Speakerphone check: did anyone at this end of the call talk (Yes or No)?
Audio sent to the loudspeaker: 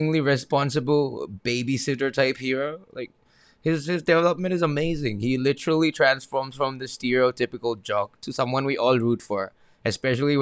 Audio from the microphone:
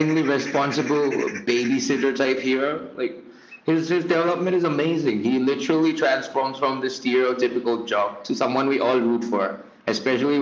No